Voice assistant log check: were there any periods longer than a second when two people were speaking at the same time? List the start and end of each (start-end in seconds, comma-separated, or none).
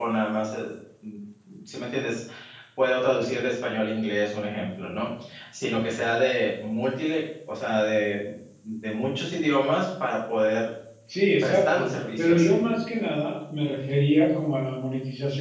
11.4-12.6